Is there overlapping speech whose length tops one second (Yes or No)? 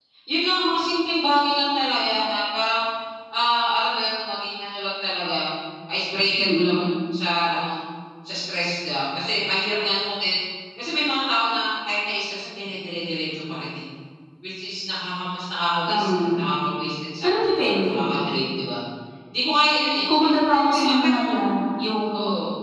Yes